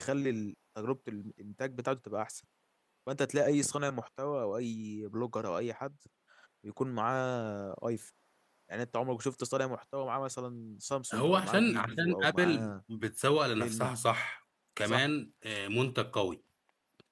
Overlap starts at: 11.1 s

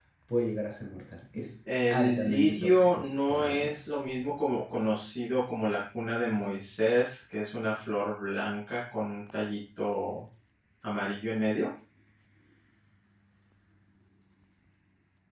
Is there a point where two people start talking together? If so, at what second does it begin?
1.7 s

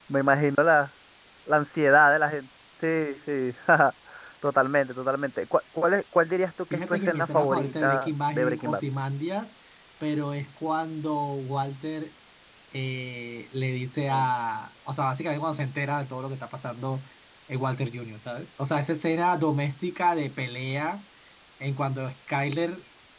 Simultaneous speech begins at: 6.7 s

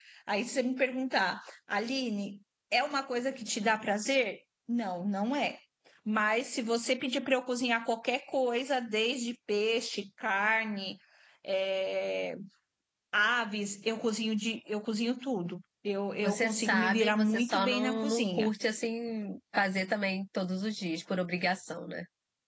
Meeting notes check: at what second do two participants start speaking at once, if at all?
16.2 s

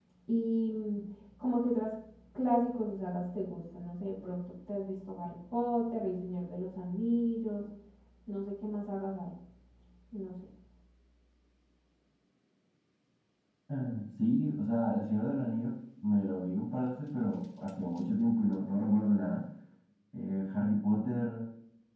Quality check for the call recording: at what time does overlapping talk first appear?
none

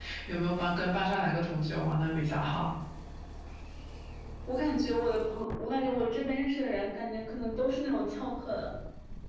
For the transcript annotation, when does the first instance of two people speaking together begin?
none

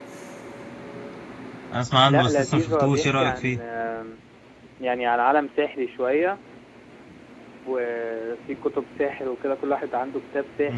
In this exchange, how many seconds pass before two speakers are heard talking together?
2.1 s

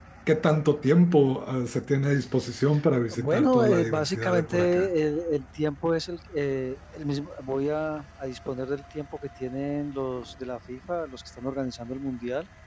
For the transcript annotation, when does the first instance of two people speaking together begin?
3.1 s

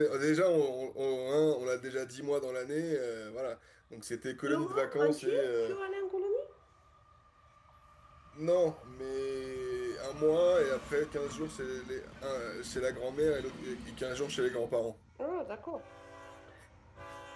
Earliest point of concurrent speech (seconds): 4.5 s

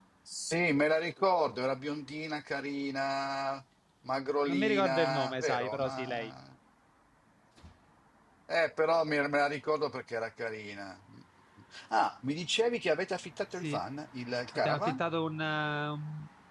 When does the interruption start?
4.5 s

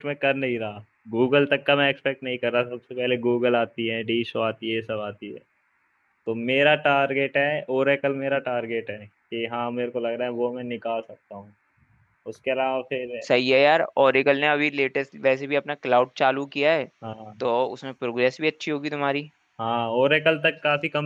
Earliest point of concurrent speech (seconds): none

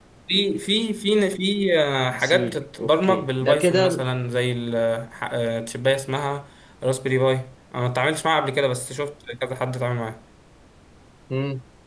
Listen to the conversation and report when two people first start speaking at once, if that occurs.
2.1 s

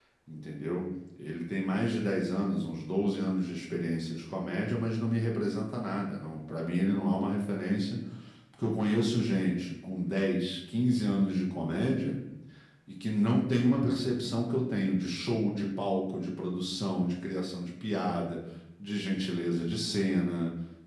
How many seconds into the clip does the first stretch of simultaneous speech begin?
none

